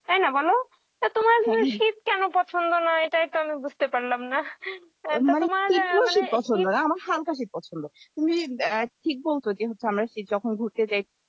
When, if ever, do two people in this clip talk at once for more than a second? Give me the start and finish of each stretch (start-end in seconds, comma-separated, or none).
5.3-6.7